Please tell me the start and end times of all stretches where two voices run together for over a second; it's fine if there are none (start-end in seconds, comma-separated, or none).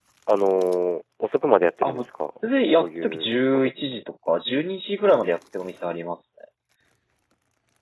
2.8-4.0